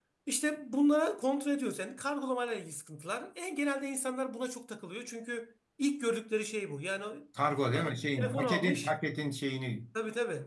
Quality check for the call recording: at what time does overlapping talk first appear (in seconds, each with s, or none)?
7.7 s